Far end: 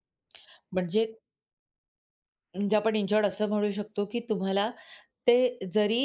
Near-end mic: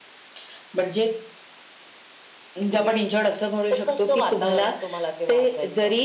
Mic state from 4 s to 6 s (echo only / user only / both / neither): both